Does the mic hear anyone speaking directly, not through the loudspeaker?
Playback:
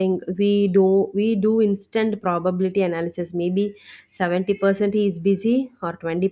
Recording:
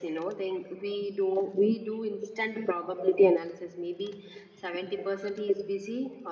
No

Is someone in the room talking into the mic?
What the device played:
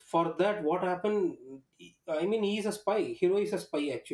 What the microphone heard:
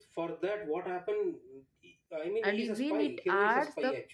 Yes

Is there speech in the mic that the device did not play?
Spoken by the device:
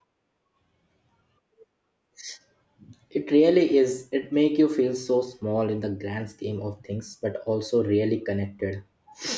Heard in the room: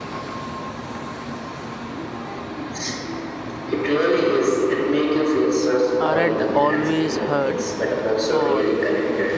Yes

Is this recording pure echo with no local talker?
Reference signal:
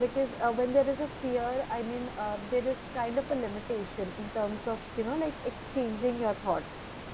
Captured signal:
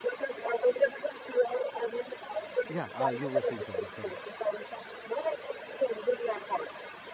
No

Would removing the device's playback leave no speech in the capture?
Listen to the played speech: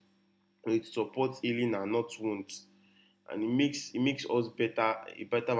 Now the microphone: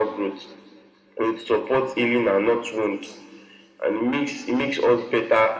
Yes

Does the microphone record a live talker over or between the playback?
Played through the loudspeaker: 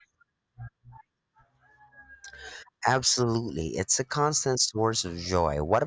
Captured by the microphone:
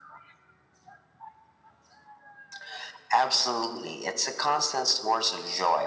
No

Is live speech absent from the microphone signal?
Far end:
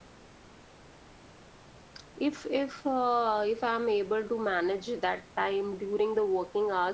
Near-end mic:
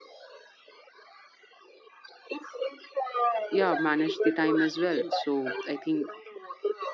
No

